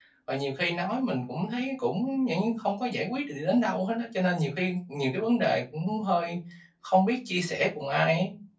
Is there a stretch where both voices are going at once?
No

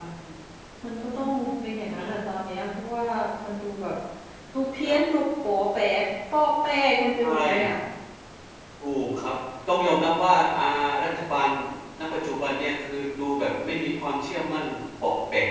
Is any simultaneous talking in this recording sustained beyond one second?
No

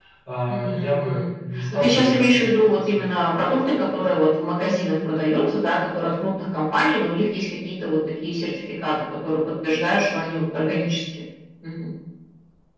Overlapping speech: Yes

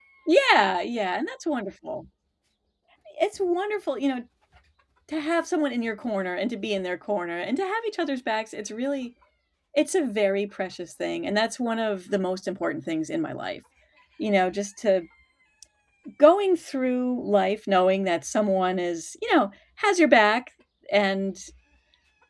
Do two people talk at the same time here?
No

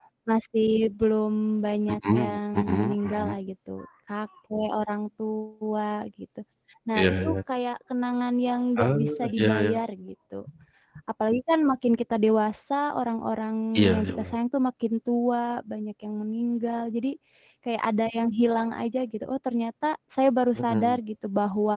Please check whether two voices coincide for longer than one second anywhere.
Yes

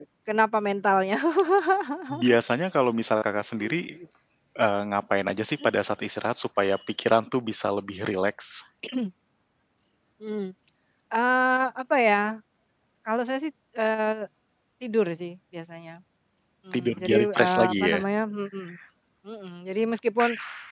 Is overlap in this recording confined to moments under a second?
No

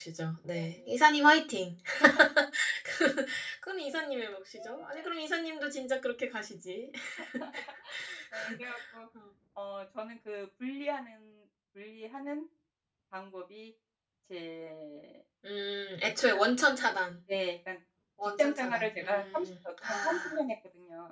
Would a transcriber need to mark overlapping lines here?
Yes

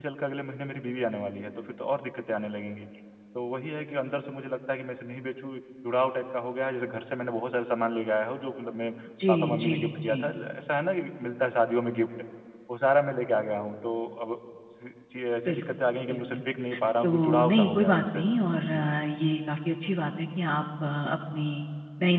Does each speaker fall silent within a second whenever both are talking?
No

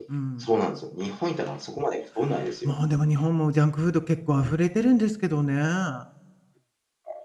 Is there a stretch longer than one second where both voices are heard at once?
No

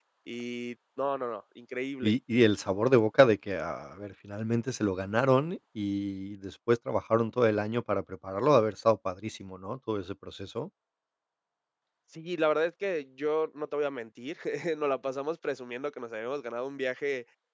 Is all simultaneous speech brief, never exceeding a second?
Yes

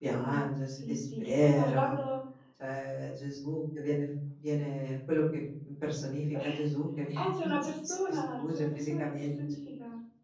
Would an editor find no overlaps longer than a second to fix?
No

